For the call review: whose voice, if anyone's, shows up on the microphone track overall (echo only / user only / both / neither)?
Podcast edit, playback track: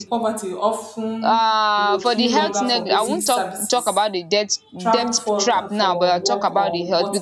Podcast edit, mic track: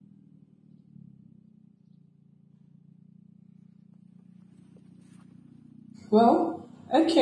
user only